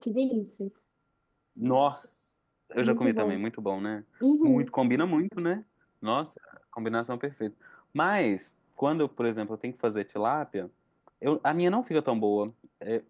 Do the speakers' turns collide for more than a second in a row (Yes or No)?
No